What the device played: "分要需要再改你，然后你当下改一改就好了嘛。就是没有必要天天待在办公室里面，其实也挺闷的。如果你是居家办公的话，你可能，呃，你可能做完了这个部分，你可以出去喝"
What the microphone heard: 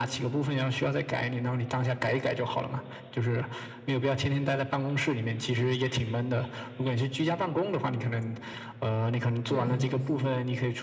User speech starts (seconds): 9.4 s

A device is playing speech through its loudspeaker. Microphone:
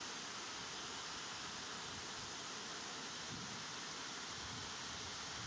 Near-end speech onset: none

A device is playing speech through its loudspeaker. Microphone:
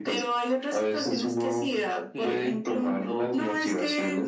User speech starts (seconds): 2.1 s

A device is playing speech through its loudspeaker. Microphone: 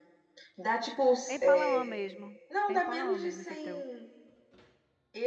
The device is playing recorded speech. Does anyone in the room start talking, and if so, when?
1.3 s

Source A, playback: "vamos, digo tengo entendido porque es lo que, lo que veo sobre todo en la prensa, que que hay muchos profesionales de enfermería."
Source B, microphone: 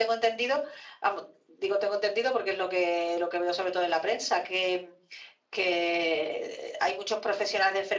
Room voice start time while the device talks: none

